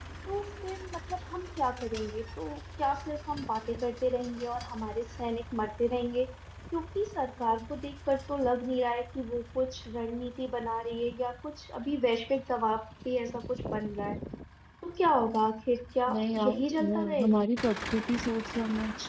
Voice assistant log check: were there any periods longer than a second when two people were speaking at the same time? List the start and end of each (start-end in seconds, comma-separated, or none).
16.1-17.4